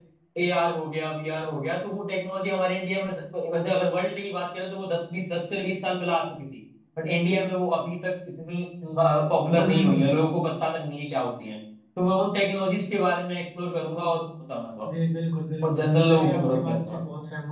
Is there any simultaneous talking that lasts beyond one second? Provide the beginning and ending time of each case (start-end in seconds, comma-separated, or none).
15.6-17.0